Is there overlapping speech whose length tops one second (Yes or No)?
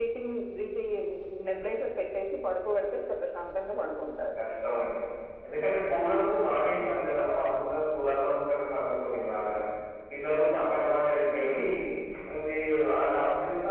No